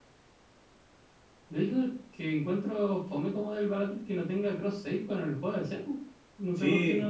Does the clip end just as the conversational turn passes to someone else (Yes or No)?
Yes